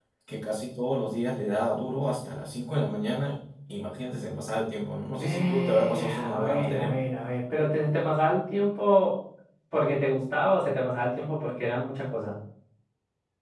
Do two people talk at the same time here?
Yes, from 5.2 s

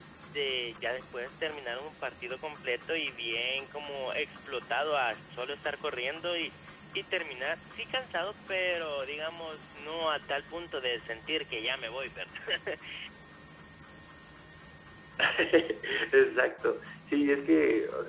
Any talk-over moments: No

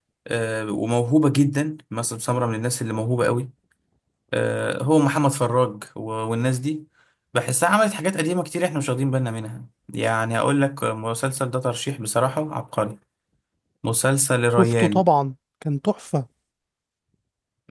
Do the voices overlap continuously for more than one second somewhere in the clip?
No

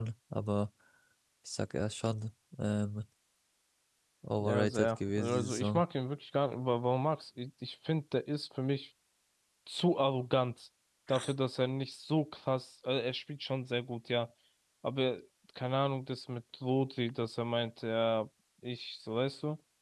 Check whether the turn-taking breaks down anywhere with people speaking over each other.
Yes, from 4.4 s

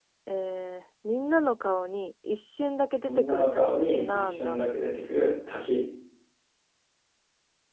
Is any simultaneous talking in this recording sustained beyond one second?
Yes, from 3.0 s

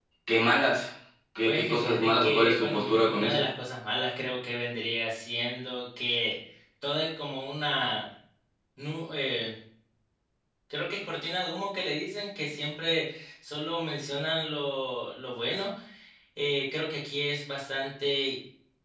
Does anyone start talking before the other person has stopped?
Yes, from 1.4 s

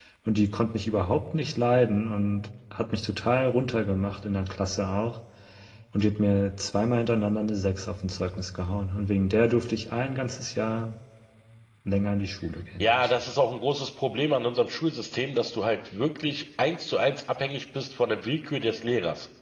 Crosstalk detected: No

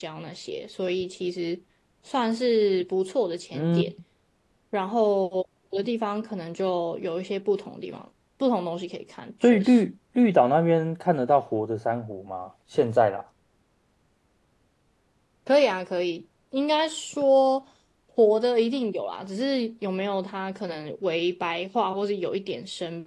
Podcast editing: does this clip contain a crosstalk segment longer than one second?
No

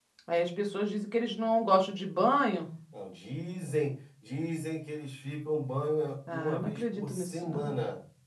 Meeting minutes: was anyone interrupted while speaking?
Yes, from 6.3 s

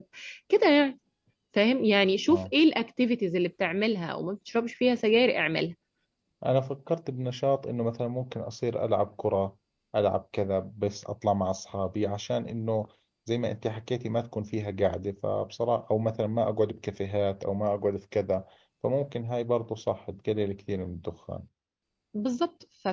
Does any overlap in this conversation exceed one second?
No

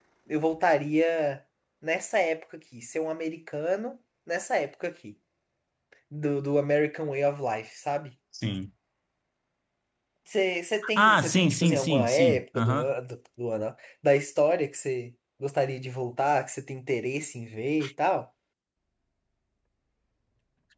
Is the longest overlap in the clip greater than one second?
Yes, from 11.0 s

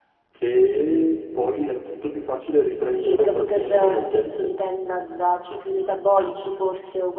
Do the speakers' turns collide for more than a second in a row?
Yes, from 2.9 s

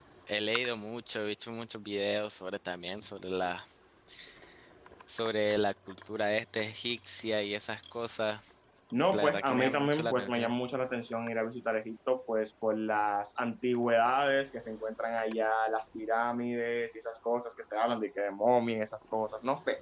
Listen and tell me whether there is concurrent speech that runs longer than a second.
Yes, from 9.1 s

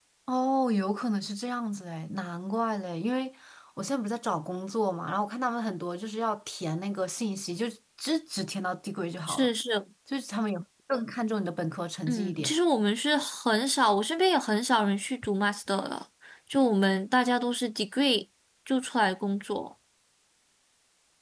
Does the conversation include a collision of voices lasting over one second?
No

